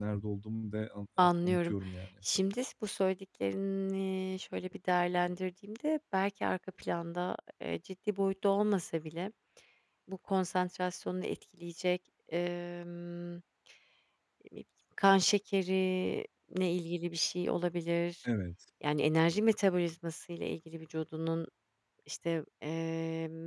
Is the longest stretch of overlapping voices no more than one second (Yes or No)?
Yes